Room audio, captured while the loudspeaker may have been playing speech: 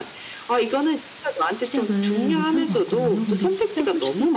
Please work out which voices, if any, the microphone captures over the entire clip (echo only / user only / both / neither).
both